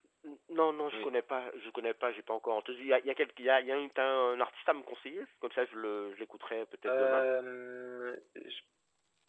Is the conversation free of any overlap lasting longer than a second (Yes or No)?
Yes